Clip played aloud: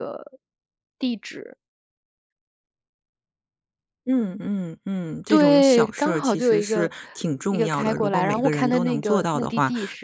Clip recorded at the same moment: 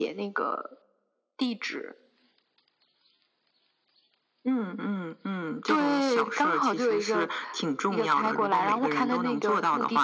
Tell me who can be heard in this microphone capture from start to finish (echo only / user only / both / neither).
echo only